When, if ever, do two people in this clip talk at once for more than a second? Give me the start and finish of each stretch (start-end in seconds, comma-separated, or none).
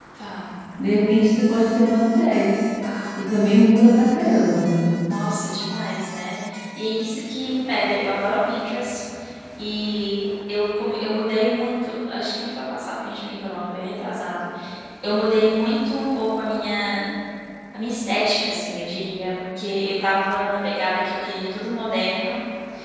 none